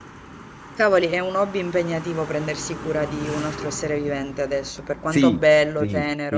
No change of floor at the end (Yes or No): No